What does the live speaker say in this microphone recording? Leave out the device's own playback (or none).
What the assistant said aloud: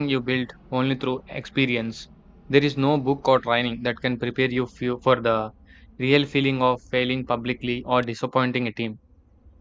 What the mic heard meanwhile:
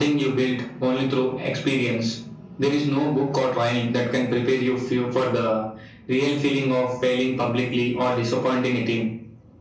none